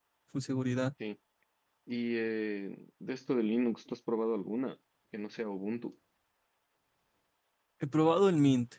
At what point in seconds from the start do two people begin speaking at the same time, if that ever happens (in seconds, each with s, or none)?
none